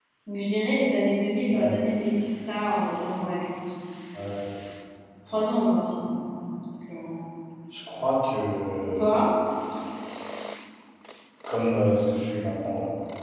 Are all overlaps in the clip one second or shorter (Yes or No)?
Yes